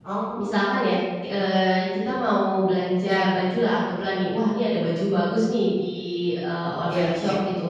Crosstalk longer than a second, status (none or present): none